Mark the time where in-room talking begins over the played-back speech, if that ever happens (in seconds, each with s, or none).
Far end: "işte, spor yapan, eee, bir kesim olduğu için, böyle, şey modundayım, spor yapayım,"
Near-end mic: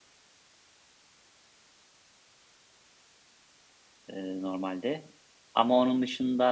4.1 s